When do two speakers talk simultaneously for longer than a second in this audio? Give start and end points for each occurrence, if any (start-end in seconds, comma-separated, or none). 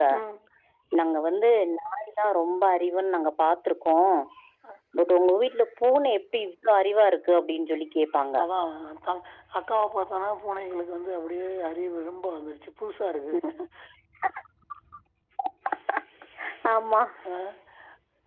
none